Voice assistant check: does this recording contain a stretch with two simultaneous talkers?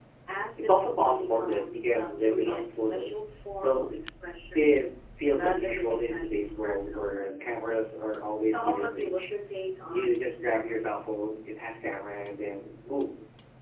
Yes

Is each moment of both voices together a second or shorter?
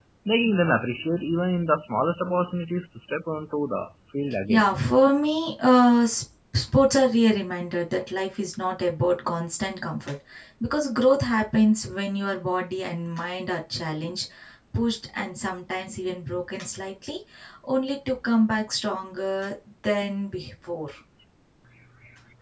Yes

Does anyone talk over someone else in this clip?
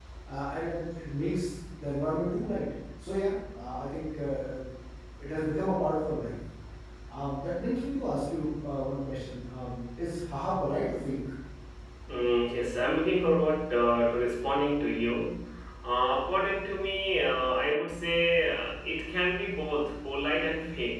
No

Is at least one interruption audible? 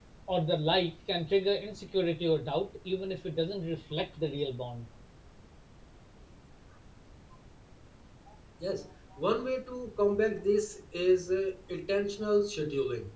No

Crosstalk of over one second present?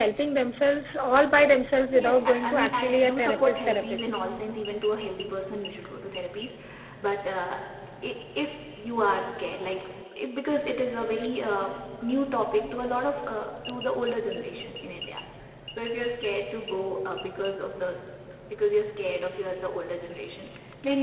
Yes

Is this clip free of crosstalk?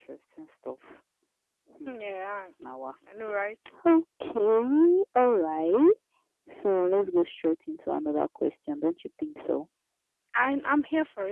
Yes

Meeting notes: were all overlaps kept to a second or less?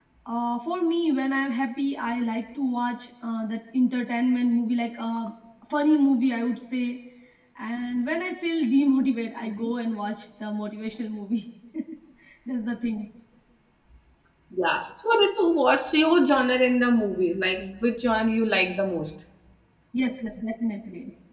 Yes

